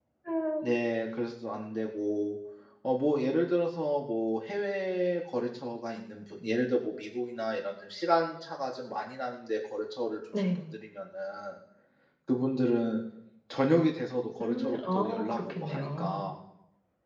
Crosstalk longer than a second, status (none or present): present